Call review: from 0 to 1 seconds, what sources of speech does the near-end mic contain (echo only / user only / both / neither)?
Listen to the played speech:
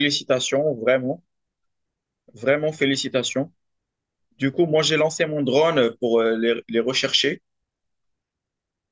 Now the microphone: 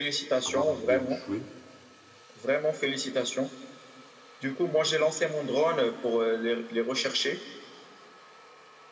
both